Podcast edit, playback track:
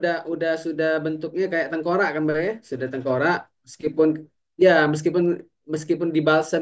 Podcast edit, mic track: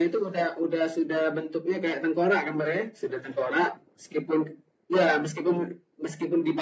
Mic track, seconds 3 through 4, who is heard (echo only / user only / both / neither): echo only